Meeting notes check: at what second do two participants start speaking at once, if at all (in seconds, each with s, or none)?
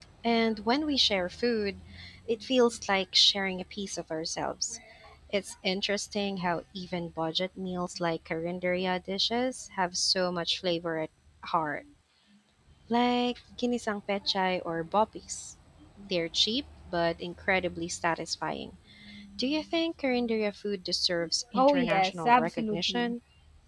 21.5 s